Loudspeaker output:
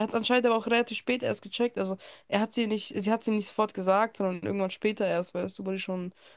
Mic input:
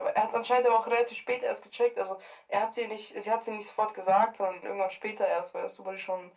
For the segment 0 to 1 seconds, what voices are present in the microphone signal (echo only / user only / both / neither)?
echo only